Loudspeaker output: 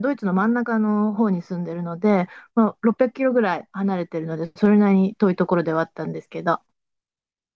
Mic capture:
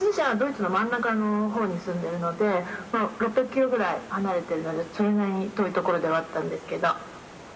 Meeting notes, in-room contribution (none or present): none